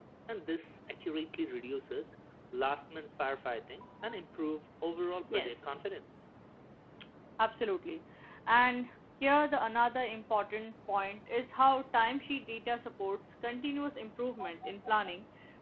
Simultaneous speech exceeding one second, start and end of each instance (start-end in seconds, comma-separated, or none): none